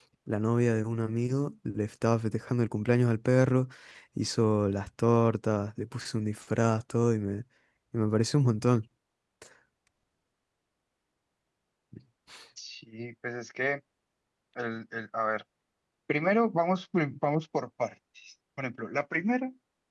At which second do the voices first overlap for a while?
none

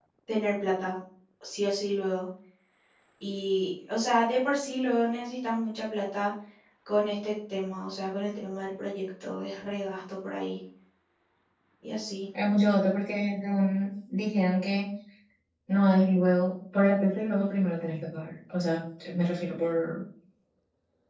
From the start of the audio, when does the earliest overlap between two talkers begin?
none

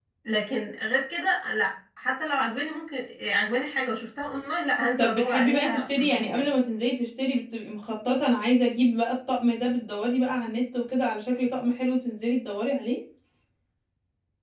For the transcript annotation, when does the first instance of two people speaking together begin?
5.0 s

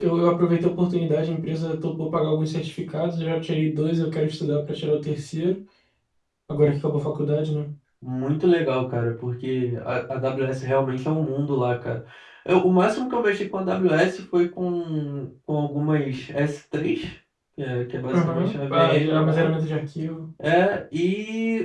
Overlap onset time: 18.1 s

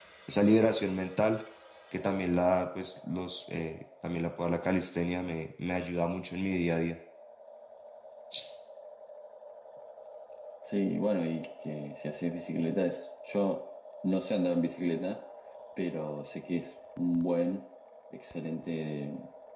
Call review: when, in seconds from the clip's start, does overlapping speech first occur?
none

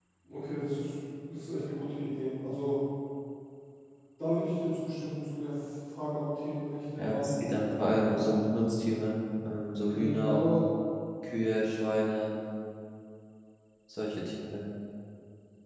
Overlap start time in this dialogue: 7.0 s

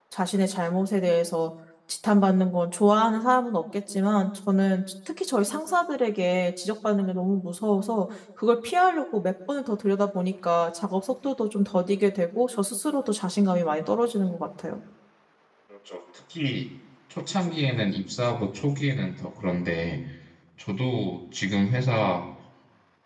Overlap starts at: none

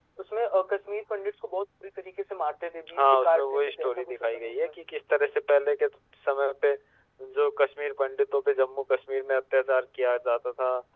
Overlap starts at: 3.0 s

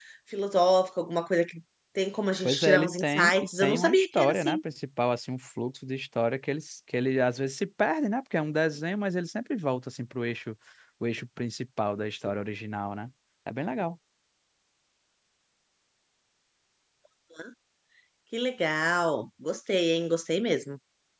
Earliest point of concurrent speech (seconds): 2.4 s

